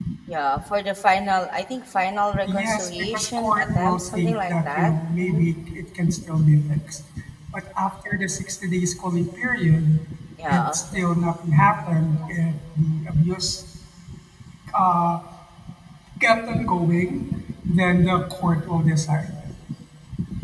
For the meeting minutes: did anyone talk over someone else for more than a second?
Yes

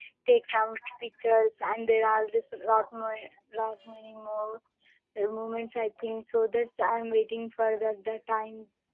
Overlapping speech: No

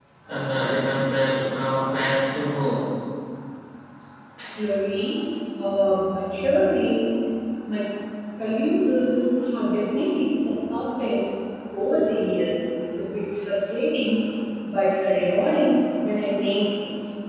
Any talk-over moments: No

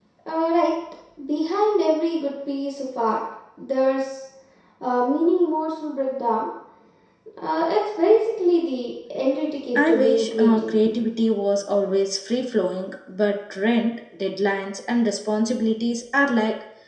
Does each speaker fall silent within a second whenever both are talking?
No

